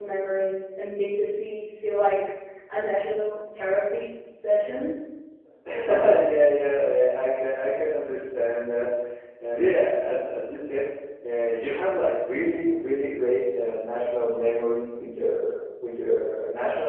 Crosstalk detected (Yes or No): No